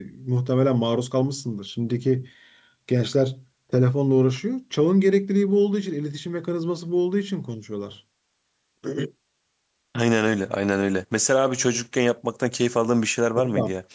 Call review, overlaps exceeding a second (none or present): none